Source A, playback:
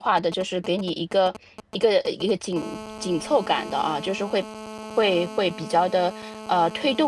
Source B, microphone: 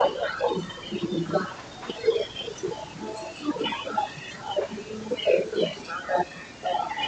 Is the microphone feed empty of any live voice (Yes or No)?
Yes